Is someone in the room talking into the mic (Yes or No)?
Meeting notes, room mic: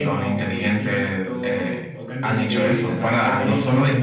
Yes